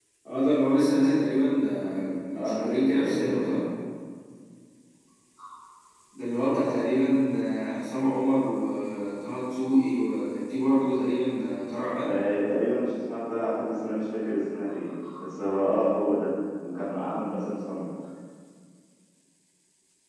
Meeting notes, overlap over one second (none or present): present